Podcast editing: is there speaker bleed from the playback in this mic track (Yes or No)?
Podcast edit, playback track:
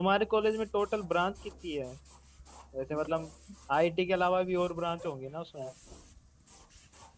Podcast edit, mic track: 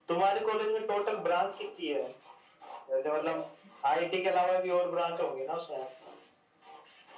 Yes